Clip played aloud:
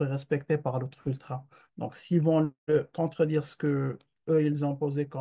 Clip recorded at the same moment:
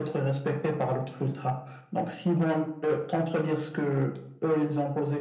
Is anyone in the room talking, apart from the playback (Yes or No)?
No